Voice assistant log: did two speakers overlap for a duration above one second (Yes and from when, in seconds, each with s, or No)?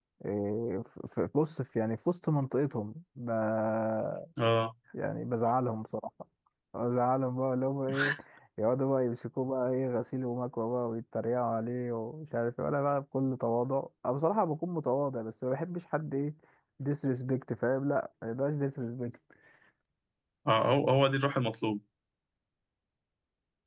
No